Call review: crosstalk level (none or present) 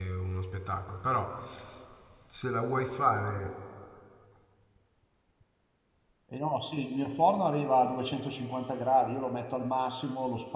none